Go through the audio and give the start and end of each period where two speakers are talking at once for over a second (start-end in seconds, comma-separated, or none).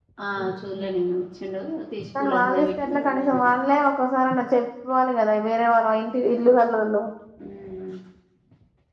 2.2-3.6